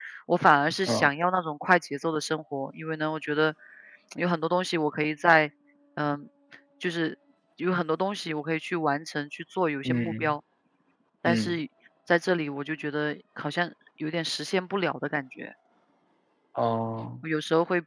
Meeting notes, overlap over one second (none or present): none